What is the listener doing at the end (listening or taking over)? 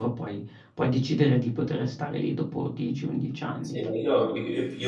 taking over